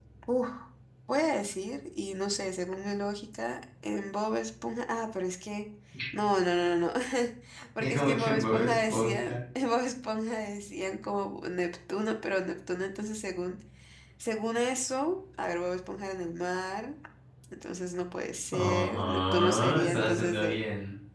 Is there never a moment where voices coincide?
No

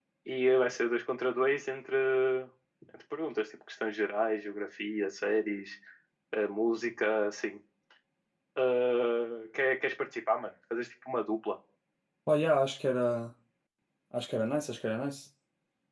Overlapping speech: No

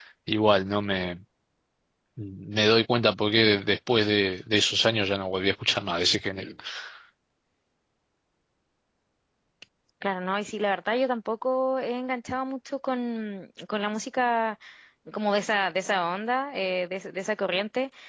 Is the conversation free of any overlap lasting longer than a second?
Yes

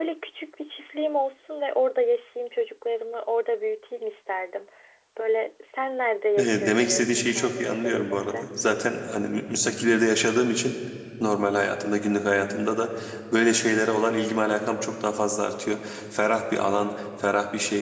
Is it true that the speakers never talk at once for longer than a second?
No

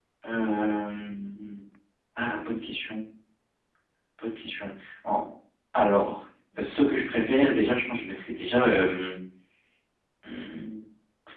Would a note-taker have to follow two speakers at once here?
No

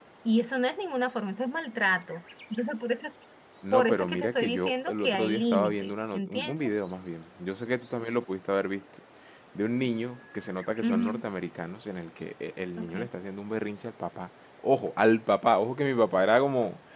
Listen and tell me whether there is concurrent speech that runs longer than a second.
Yes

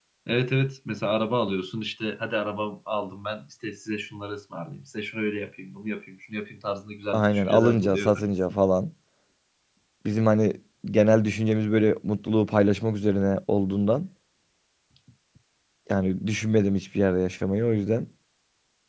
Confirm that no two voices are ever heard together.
No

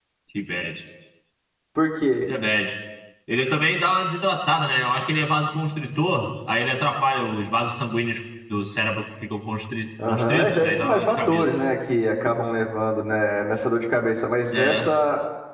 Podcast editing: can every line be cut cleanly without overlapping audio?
No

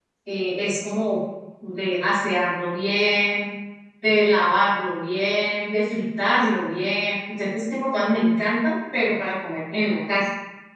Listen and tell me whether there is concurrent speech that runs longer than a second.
No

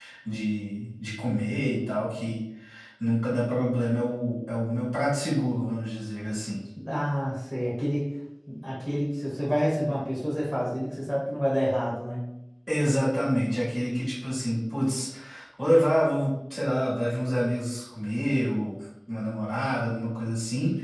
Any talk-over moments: No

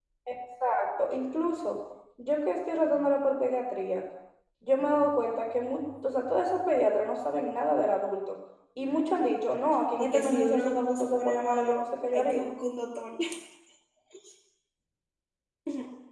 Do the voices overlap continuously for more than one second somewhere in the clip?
Yes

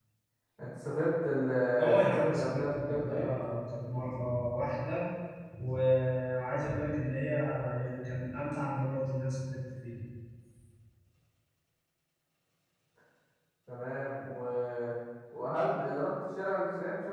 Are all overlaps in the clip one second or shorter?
No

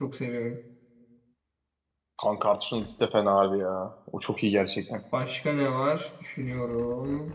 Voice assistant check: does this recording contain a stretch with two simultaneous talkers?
No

